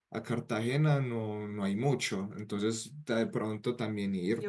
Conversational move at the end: taking over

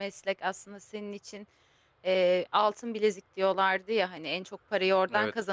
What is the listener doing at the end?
listening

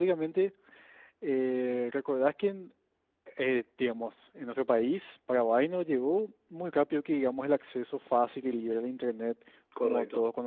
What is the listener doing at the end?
listening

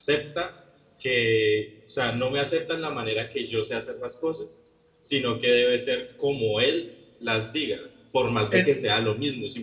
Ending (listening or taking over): listening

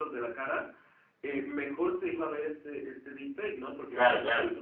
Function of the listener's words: listening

